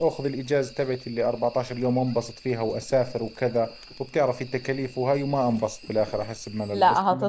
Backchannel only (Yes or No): No